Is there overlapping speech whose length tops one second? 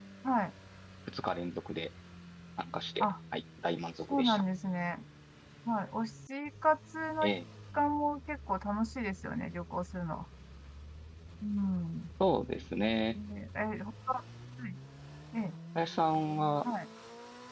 No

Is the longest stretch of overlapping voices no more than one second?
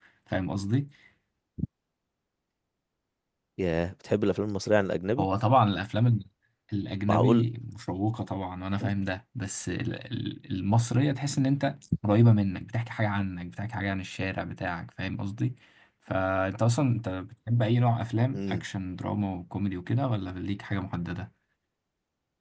Yes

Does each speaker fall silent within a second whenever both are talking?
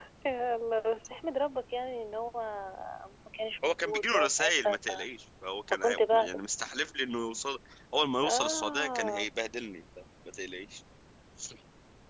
No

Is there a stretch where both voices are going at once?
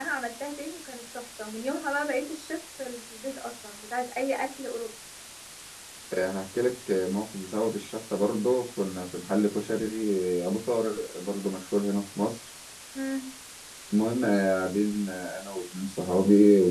No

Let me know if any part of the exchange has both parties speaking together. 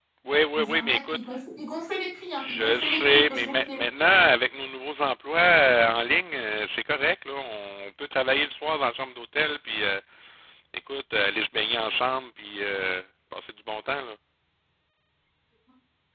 Yes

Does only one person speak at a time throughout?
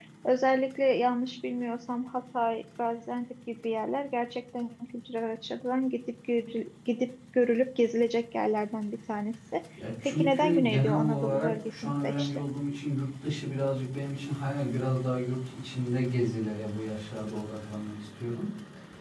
No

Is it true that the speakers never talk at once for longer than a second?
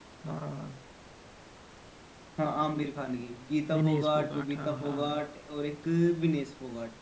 No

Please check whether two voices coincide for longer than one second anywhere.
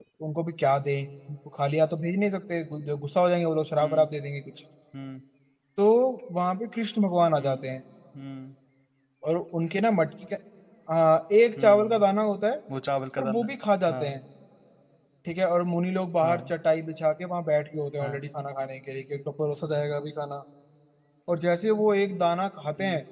No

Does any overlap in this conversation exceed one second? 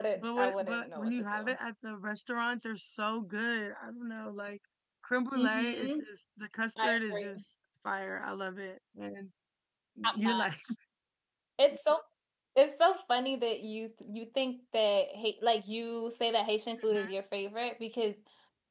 Yes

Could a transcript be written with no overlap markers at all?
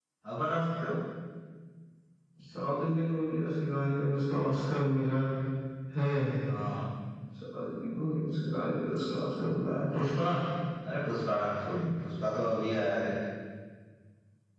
Yes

